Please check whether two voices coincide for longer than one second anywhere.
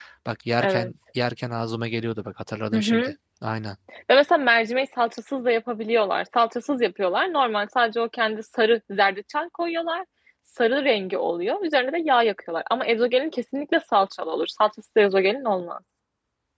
No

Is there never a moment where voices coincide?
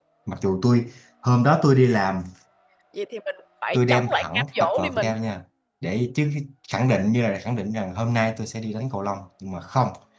No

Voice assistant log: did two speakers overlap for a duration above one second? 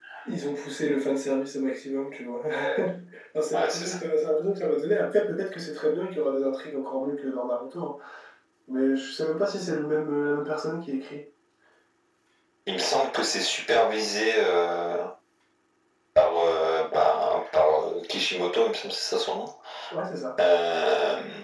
No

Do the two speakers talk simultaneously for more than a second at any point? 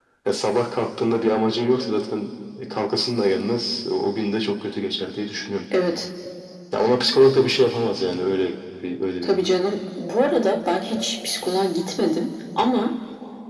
No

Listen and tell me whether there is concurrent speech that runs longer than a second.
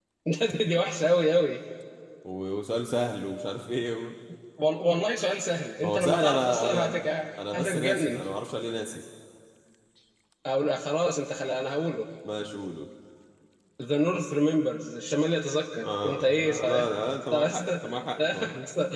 Yes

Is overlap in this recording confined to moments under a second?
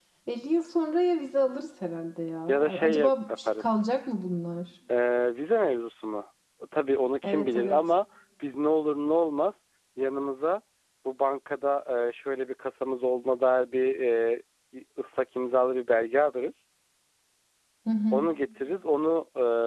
No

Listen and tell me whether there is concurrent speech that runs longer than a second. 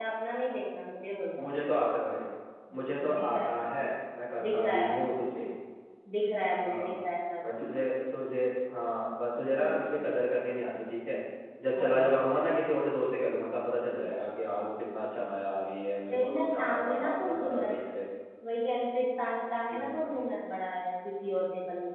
Yes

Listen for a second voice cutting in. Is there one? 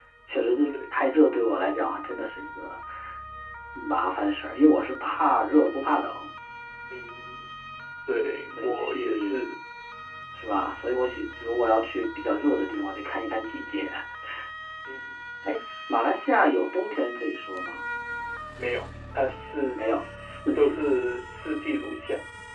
Yes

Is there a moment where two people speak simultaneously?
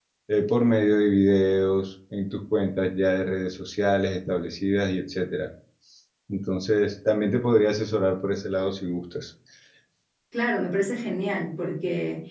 No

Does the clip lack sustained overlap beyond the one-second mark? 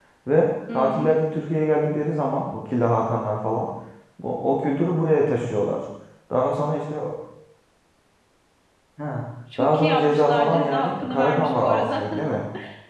No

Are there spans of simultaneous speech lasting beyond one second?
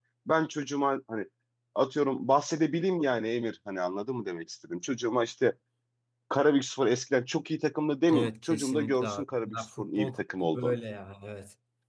Yes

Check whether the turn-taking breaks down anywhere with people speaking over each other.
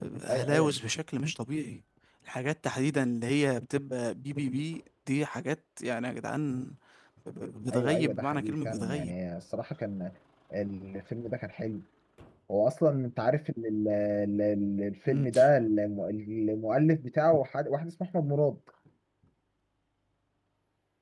Yes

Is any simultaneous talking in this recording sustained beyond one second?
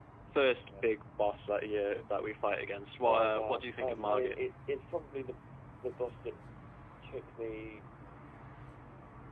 Yes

